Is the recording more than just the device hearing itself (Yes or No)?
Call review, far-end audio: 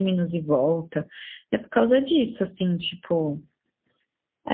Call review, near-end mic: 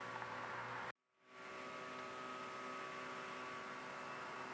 No